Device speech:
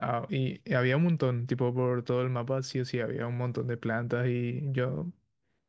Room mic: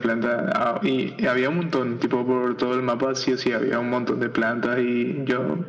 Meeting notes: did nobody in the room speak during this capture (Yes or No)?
Yes